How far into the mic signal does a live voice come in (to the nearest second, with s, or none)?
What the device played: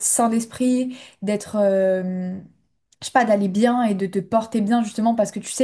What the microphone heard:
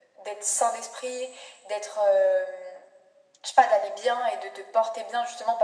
none